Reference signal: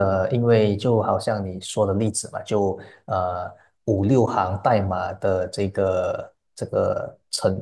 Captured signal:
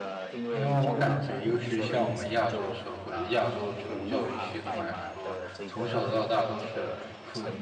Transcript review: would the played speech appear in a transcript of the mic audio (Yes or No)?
Yes